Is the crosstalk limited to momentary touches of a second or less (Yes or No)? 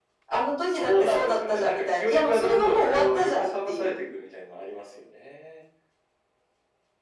No